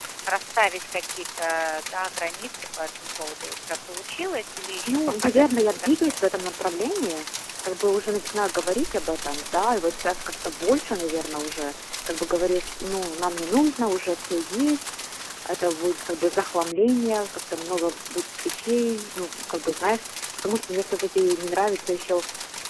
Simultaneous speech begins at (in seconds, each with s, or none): 4.9 s